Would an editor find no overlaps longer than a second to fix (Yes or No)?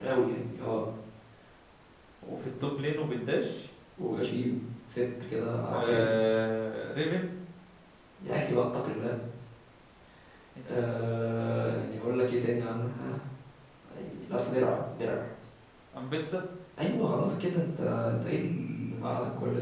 Yes